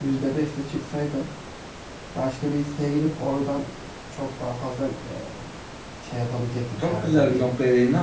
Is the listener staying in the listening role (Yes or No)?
No